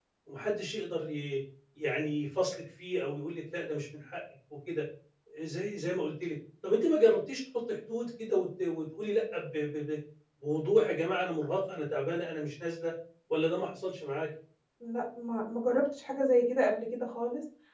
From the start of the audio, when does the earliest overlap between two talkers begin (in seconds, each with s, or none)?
none